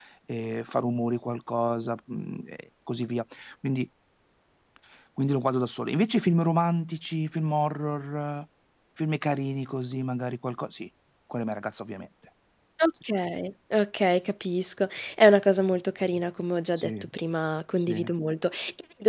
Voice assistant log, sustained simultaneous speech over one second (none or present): none